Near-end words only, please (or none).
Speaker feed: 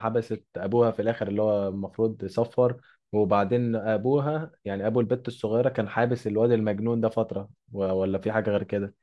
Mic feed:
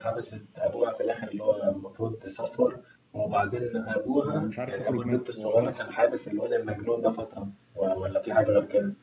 ومش عارف يخرج منها هو خلاص